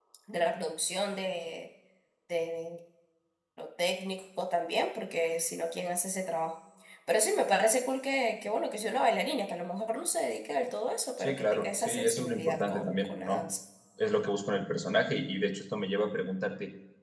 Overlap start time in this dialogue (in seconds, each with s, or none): 11.2 s